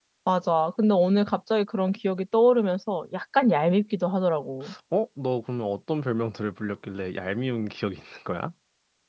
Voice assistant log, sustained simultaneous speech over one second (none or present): none